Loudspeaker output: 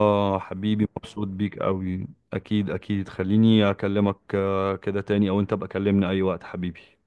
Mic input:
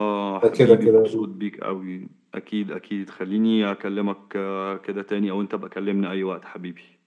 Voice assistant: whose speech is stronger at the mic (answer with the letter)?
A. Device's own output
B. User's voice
B